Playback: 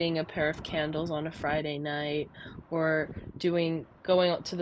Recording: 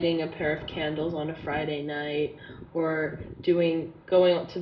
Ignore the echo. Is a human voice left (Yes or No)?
No